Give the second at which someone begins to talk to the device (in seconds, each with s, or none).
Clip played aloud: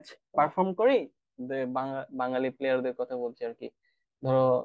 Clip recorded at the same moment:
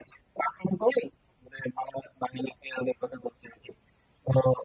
none